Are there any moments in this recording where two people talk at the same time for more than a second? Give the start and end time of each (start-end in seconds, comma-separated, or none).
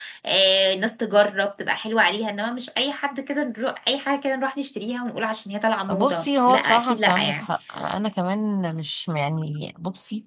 5.9-7.5